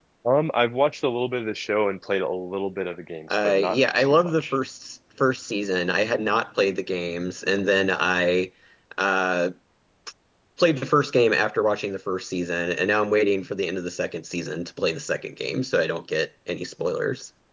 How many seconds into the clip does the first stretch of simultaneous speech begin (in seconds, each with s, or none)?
3.3 s